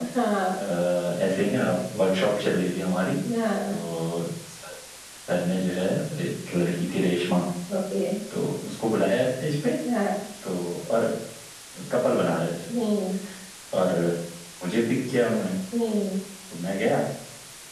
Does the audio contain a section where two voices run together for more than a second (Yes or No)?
No